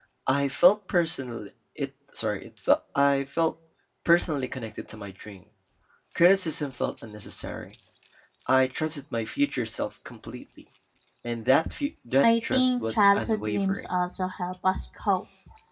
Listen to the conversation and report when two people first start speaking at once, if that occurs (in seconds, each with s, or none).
12.2 s